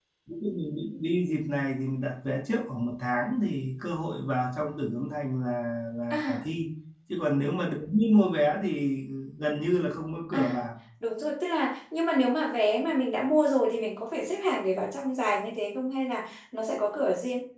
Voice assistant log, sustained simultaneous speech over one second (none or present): none